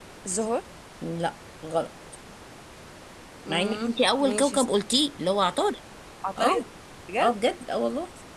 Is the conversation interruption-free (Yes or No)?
No